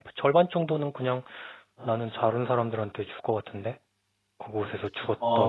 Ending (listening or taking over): taking over